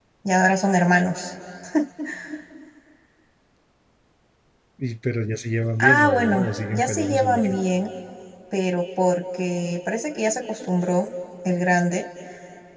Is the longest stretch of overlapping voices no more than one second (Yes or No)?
No